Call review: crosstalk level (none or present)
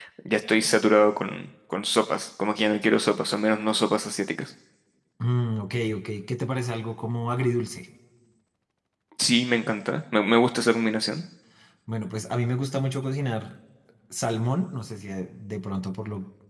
none